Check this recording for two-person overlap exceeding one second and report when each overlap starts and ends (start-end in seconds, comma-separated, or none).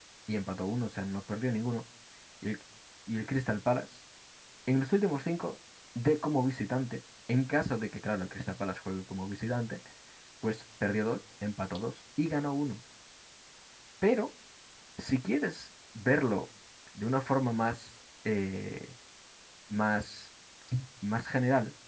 none